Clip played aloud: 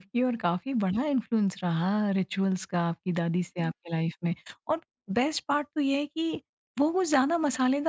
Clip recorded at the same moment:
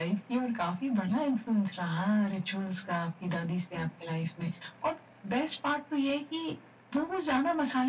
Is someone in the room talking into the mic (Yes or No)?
No